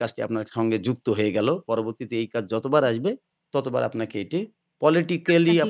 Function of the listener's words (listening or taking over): listening